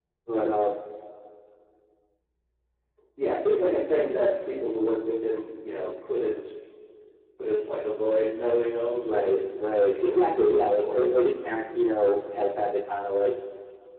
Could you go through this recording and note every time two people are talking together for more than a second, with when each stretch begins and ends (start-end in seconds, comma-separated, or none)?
9.0-11.1